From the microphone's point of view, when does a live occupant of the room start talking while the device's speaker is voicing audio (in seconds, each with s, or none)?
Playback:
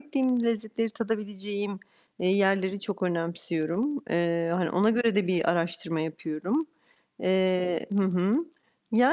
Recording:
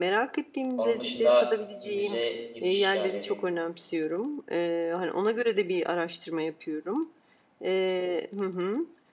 0.8 s